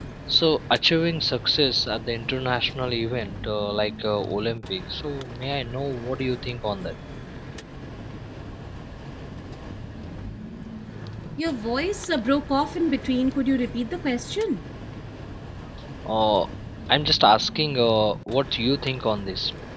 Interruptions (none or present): none